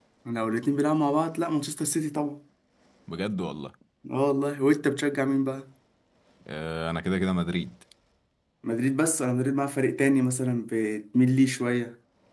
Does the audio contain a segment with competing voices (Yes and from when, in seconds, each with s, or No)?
No